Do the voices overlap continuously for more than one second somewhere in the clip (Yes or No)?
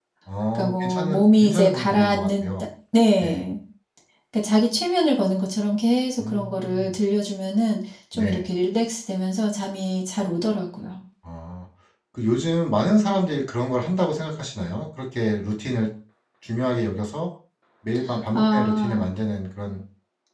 Yes